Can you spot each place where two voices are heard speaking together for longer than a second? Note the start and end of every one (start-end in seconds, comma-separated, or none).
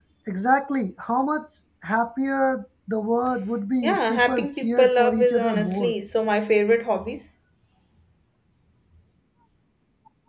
3.8-5.9